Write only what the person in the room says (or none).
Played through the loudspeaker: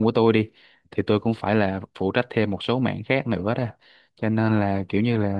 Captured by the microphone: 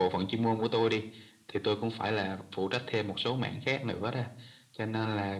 none